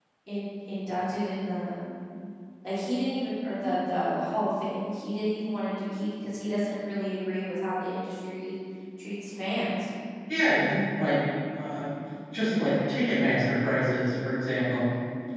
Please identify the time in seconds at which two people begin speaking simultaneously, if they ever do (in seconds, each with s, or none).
none